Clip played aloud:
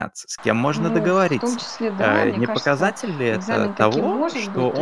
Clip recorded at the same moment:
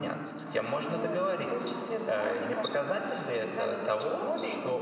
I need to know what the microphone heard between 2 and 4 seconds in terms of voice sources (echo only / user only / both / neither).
echo only